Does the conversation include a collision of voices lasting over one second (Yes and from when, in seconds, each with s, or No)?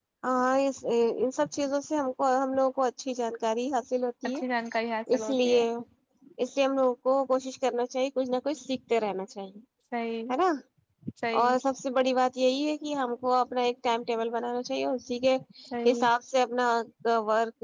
No